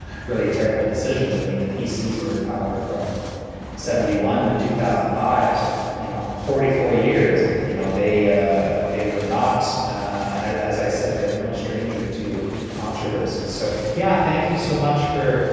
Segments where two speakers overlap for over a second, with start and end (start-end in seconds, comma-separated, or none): none